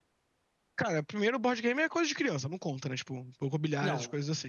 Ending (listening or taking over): taking over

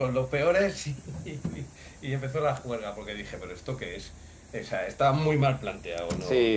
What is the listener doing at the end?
taking over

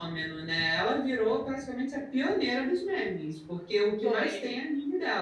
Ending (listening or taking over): listening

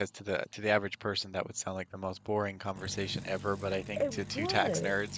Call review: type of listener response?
listening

